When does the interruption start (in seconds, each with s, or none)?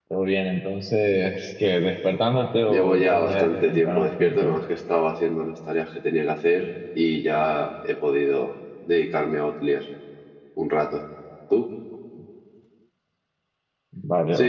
2.7 s